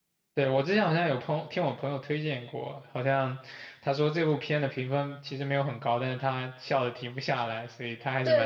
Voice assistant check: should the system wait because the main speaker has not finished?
No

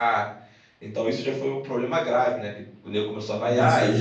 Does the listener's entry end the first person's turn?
Yes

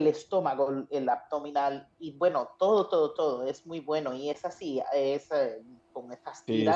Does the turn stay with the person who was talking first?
No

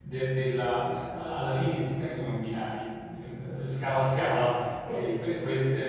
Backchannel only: Yes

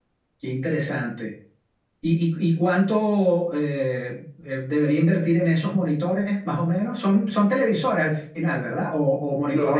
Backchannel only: No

